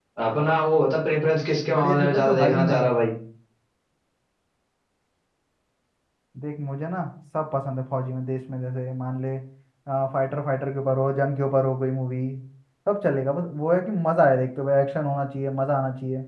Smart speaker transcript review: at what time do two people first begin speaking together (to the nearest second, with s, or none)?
2 s